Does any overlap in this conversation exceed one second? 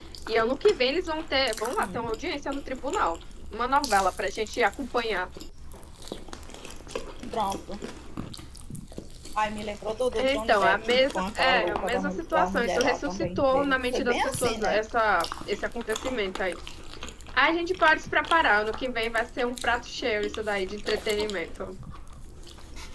Yes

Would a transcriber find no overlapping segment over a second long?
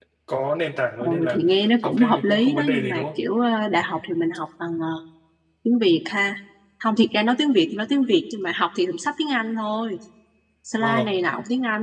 No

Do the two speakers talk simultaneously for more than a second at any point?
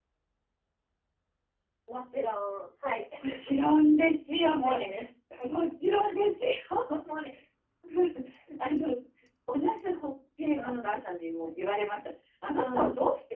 No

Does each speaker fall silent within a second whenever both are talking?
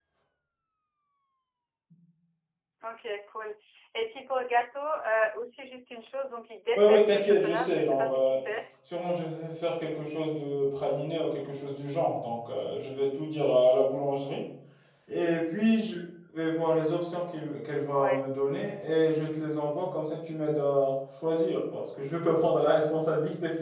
No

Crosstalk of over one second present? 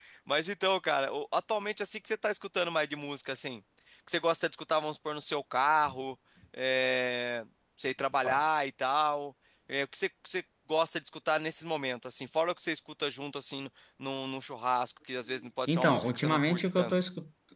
Yes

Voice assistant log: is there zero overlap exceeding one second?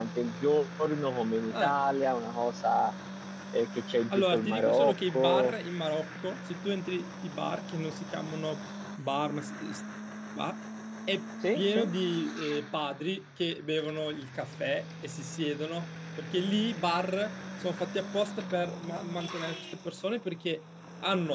No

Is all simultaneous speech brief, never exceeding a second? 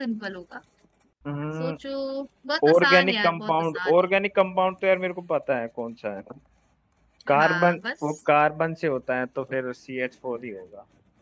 No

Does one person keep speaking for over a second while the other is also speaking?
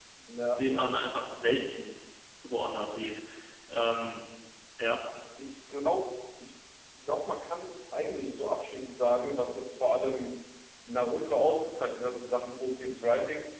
No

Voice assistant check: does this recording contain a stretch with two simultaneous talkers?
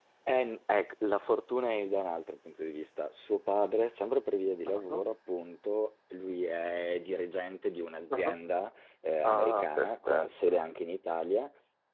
Yes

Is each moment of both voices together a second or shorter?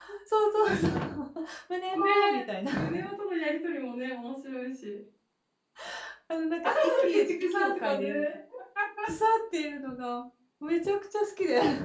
No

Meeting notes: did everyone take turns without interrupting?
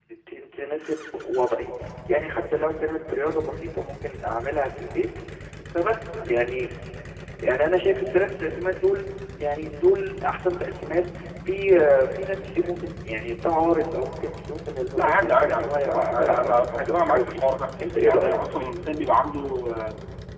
No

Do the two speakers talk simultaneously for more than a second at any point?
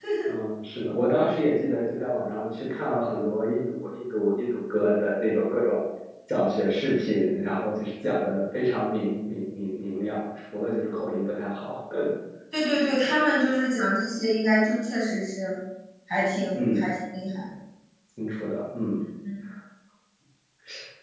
No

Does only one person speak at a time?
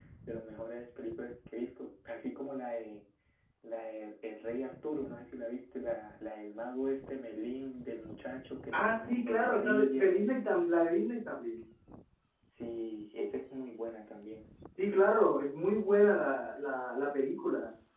No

